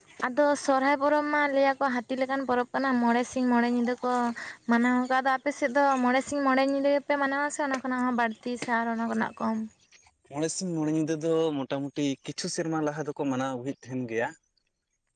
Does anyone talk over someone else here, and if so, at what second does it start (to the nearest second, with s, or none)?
none